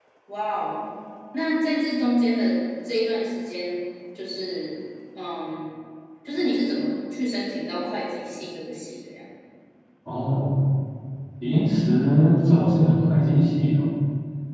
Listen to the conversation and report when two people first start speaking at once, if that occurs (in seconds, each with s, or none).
none